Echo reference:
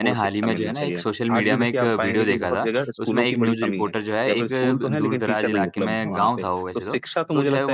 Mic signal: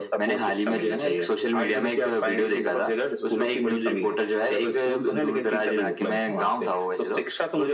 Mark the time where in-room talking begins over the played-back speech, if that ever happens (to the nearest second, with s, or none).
none